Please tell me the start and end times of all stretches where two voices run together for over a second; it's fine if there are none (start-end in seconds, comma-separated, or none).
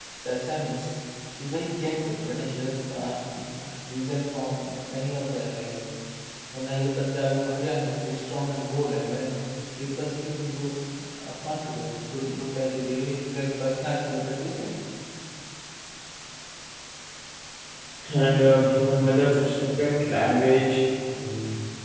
none